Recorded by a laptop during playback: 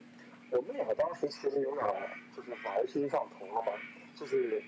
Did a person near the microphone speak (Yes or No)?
No